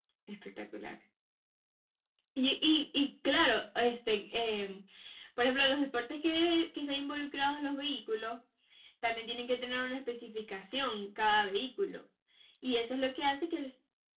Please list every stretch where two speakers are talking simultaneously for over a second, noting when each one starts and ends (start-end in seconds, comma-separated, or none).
none